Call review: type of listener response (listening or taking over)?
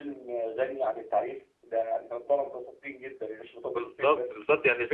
taking over